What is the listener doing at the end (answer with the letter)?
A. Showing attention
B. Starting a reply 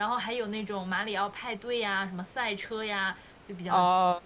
B